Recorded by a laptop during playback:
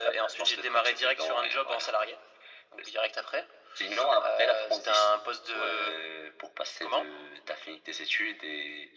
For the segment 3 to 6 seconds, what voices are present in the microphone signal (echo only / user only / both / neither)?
echo only